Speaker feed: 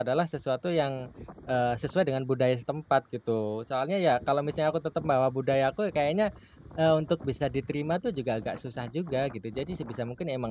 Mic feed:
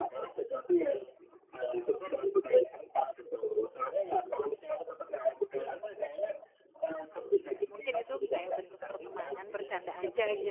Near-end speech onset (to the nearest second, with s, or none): 7 s